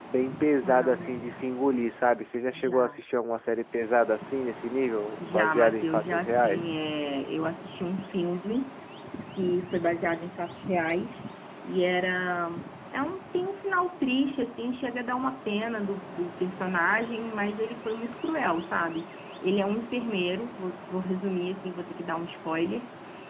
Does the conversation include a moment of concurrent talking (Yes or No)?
Yes